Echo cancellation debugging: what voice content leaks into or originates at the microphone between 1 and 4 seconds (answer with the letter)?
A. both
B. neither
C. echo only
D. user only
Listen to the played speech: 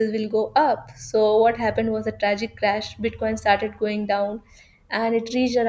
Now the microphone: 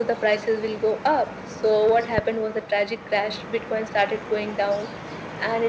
C